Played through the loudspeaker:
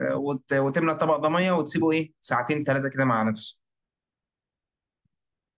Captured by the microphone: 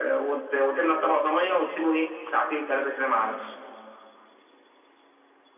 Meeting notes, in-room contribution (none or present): none